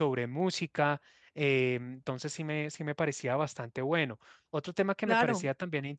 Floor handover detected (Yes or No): No